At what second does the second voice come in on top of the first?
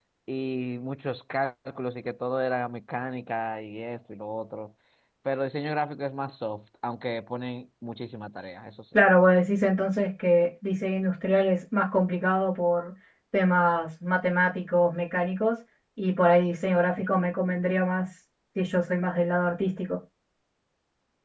none

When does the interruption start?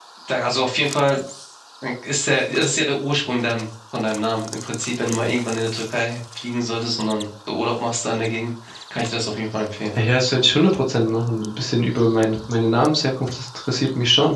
none

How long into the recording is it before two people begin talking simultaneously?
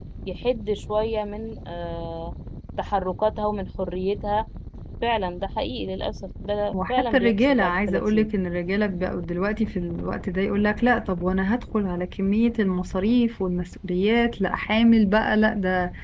6.7 s

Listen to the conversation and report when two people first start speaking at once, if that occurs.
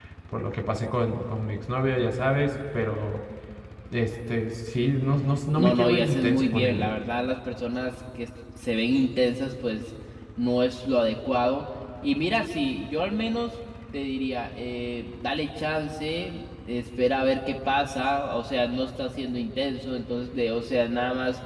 5.6 s

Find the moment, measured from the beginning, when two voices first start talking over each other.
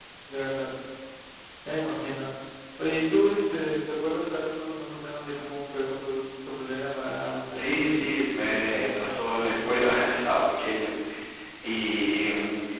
7.5 s

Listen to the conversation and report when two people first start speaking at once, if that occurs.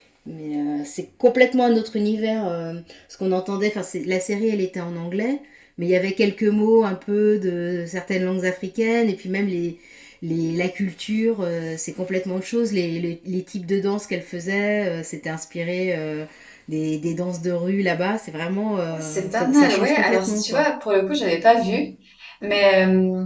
18.9 s

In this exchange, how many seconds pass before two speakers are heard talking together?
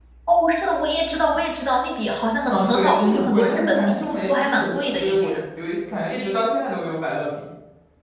2.5 s

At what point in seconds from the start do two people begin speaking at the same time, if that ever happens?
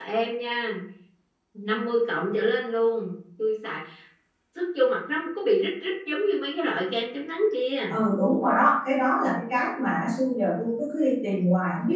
none

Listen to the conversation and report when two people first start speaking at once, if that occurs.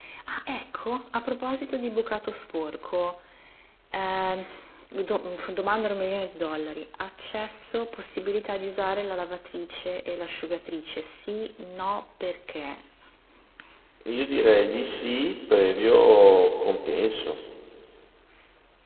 none

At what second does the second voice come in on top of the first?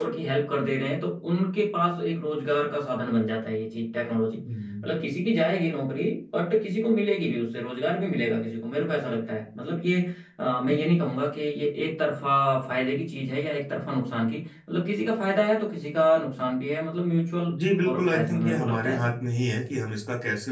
17.8 s

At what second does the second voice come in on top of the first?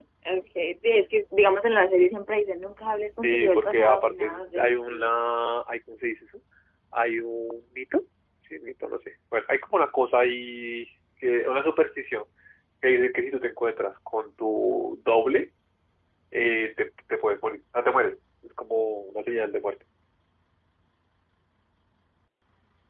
3.2 s

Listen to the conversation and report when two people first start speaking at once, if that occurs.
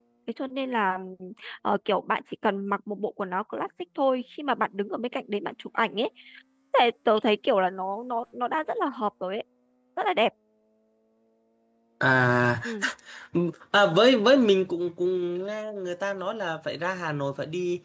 none

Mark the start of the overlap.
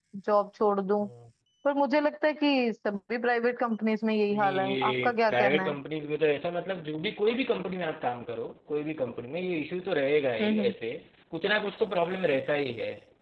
4.3 s

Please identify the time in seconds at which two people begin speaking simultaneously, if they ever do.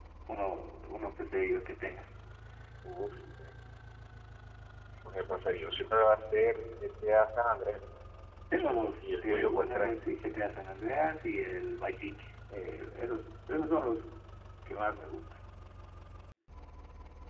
8.5 s

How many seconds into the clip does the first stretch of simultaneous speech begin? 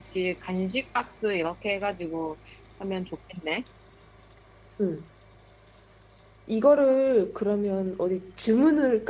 none

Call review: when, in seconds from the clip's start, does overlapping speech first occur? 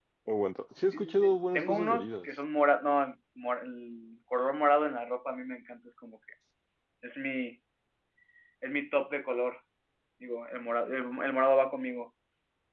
0.9 s

